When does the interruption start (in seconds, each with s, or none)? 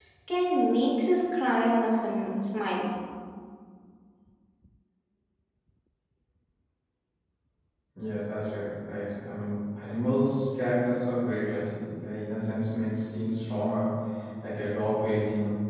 none